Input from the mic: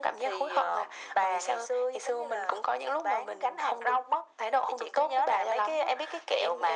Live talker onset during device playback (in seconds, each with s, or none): none